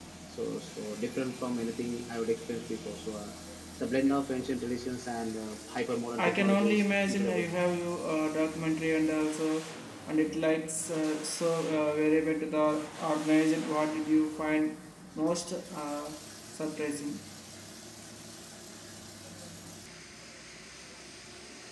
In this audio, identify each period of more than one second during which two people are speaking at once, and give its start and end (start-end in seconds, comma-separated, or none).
6.2-7.5